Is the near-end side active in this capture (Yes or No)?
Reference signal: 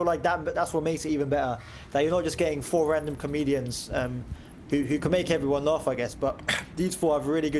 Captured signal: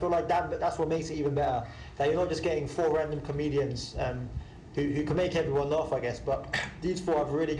No